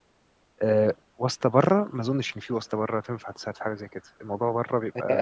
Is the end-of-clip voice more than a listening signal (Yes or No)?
Yes